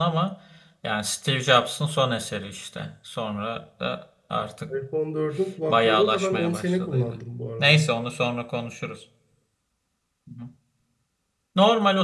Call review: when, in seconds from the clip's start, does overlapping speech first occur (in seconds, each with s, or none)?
5.7 s